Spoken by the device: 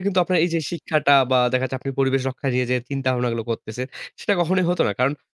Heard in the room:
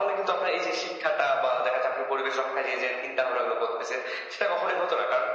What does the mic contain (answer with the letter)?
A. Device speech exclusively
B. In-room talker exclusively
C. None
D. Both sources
A